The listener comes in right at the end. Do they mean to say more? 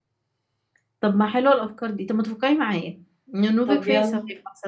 No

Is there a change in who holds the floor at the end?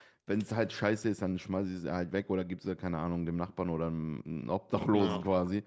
No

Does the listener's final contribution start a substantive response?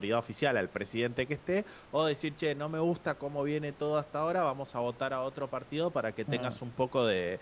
No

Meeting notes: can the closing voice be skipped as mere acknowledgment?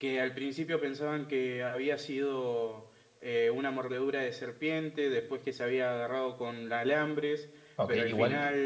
No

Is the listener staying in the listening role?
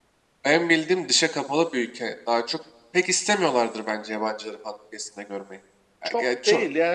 No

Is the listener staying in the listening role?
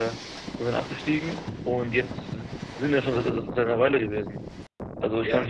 Yes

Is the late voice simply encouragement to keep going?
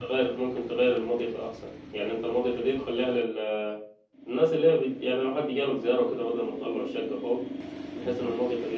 Yes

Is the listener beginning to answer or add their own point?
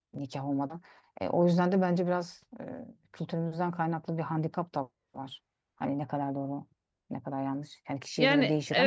Yes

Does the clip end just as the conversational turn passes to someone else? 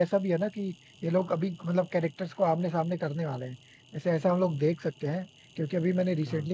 No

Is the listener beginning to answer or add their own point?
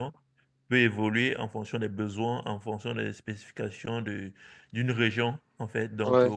No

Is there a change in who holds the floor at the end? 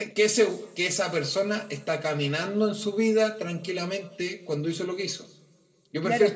Yes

